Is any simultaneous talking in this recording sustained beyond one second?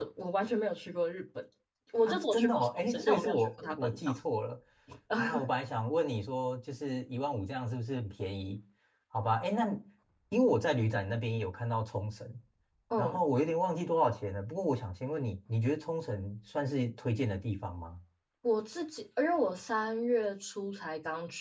Yes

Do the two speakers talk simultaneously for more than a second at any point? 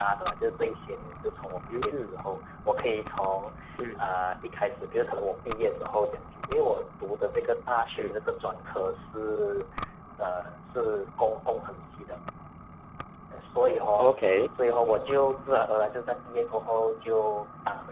No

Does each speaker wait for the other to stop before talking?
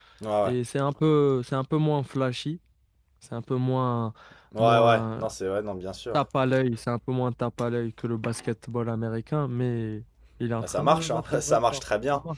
No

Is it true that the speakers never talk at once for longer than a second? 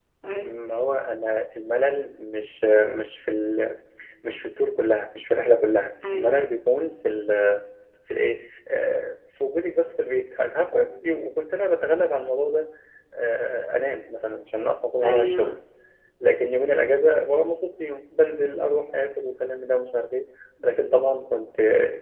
Yes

